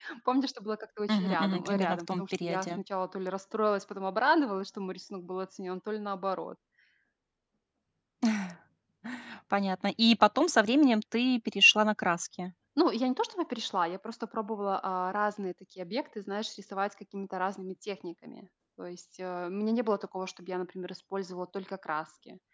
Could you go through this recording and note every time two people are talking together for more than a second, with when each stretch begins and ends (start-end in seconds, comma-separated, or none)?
1.1-2.8